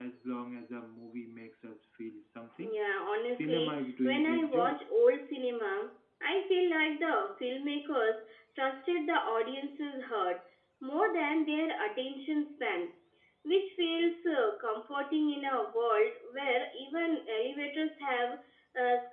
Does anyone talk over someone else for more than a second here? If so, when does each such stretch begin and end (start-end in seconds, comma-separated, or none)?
3.3-4.8